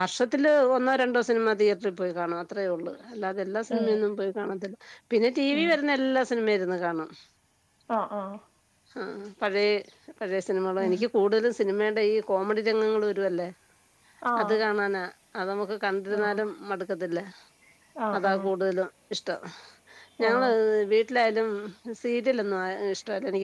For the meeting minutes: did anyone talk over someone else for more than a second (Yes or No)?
No